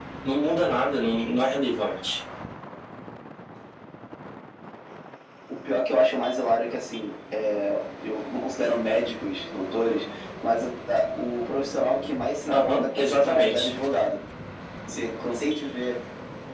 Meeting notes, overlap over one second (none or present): present